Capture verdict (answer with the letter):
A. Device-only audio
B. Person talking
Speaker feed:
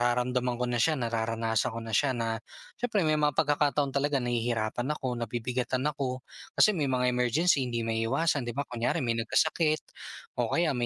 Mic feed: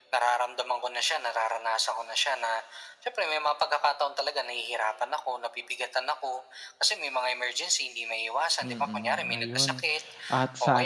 B